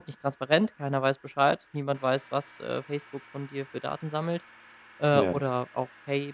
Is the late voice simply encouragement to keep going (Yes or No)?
Yes